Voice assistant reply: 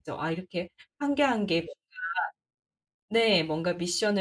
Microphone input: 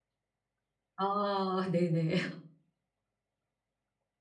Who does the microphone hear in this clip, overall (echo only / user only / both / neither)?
user only